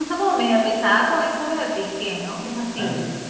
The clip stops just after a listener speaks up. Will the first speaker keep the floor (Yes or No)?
No